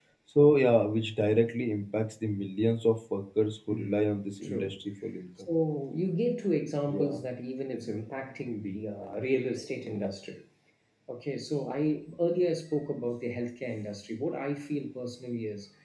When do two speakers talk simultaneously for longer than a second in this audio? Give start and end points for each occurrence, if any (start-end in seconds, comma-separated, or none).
none